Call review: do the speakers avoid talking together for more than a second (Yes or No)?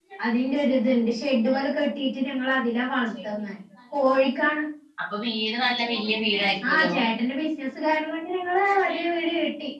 Yes